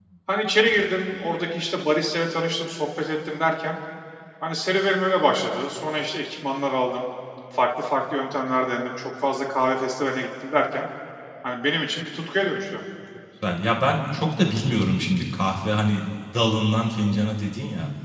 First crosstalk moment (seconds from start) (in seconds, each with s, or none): none